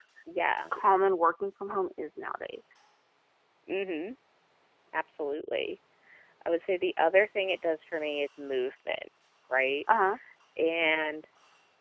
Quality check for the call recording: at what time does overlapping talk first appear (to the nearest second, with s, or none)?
none